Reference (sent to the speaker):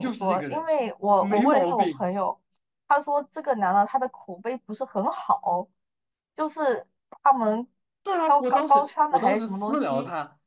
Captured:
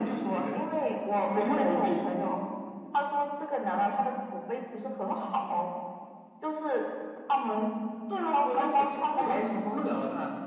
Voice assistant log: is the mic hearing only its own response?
Yes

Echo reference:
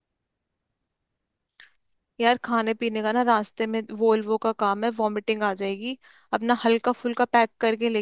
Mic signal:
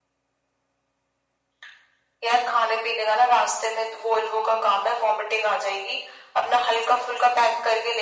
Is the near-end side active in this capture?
No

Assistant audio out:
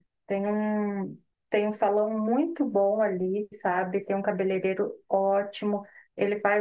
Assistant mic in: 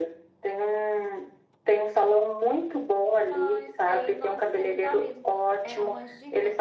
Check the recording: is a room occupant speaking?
Yes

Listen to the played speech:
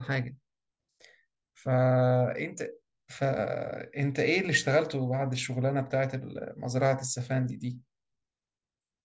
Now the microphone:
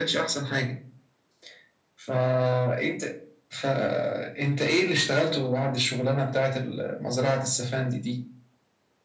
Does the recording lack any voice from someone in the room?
Yes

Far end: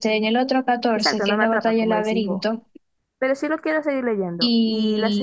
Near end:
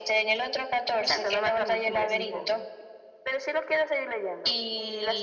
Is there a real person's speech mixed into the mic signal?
Yes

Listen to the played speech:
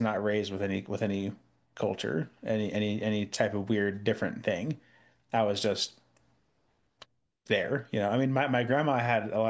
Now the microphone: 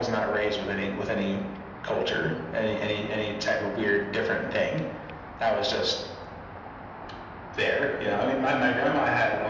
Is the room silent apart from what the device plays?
Yes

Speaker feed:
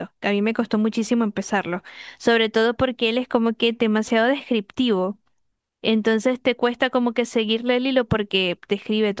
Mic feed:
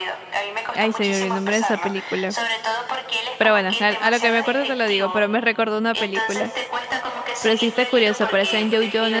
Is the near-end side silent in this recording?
No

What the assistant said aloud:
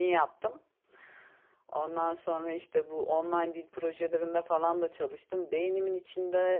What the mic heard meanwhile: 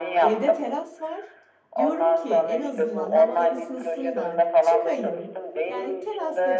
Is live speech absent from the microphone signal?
No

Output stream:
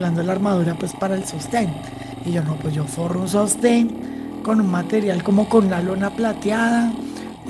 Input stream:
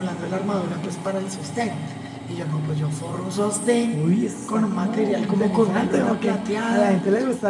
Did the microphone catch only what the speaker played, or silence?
No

